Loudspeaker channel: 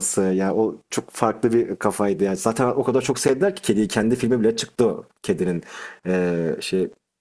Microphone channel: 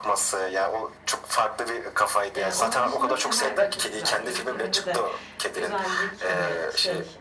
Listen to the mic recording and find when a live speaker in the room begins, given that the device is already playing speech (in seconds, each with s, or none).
2.3 s